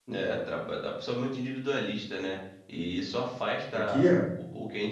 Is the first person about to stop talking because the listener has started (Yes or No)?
No